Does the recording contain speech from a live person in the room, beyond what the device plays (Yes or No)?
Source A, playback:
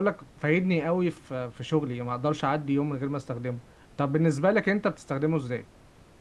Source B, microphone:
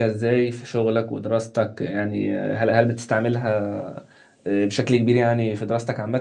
Yes